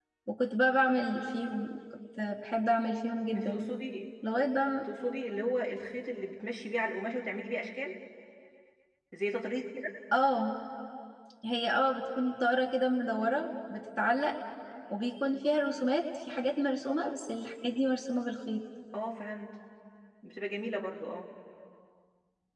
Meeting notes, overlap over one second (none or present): none